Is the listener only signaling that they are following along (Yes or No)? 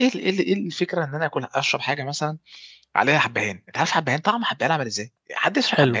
No